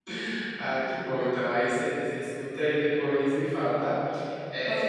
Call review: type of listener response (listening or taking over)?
listening